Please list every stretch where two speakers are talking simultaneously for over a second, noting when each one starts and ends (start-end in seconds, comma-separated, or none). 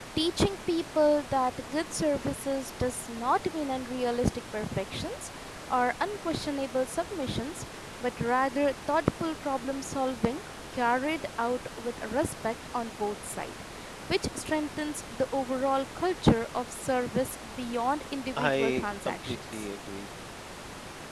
18.4-19.6